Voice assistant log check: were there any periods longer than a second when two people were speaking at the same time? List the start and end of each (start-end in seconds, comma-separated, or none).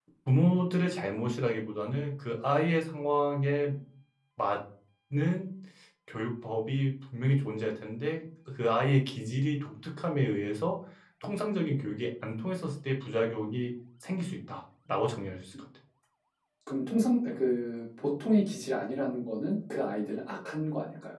none